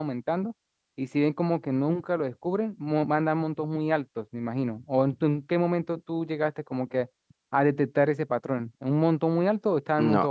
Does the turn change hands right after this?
Yes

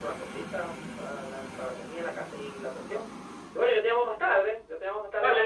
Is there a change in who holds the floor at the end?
Yes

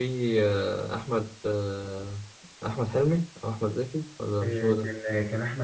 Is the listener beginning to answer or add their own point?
Yes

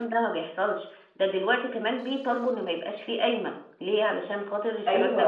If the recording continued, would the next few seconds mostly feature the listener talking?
Yes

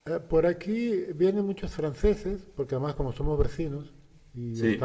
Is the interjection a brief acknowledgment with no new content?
Yes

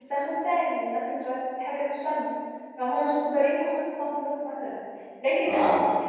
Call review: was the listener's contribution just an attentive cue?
Yes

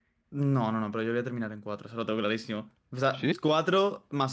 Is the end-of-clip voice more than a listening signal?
No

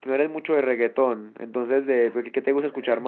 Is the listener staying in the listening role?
No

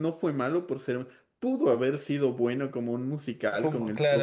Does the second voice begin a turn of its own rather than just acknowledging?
No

